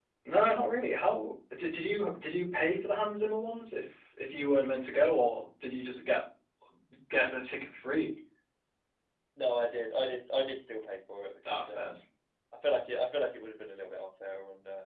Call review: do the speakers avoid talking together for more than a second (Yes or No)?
Yes